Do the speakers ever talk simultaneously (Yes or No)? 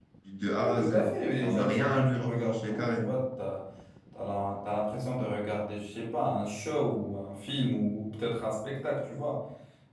Yes